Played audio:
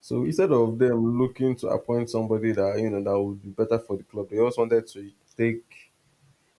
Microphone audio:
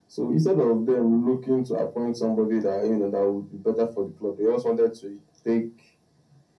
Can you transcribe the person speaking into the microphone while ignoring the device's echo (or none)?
none